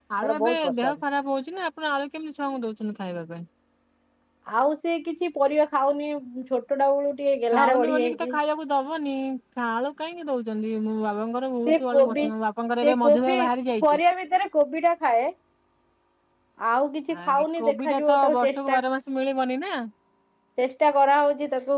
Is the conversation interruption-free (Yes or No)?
No